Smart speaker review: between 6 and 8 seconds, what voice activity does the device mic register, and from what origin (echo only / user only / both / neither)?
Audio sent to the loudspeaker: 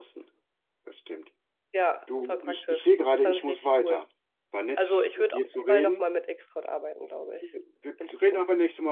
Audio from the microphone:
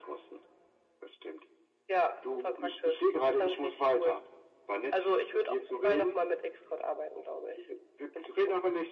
echo only